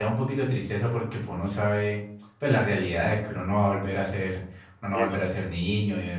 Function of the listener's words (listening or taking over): listening